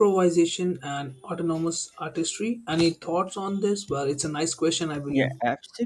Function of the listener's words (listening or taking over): taking over